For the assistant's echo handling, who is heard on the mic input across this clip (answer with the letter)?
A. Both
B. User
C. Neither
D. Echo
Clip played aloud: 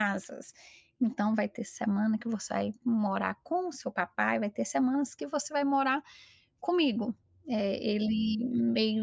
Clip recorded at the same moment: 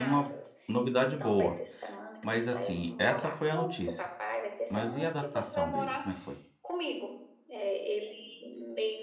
A